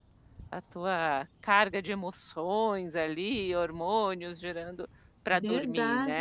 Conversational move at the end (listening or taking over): taking over